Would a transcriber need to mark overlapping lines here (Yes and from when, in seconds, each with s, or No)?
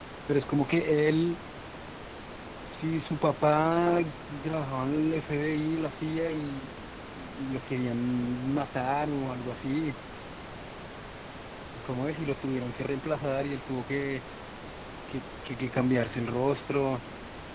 No